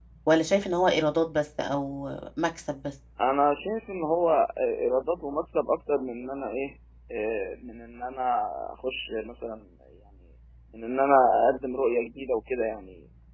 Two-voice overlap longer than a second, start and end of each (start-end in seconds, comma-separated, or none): none